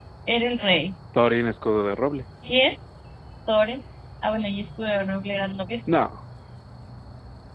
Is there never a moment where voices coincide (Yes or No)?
Yes